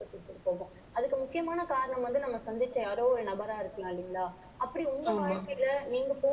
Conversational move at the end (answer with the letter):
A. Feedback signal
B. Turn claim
A